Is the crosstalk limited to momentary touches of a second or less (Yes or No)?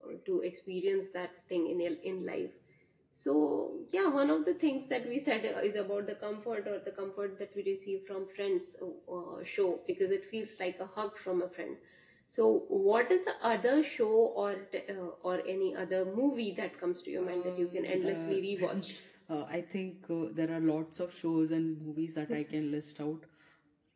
No